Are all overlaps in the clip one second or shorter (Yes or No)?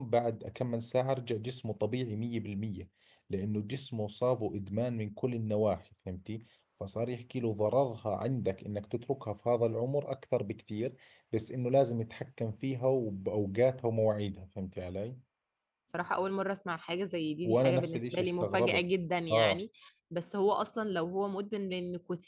No